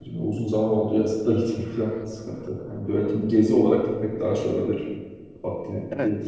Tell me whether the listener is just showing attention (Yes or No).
No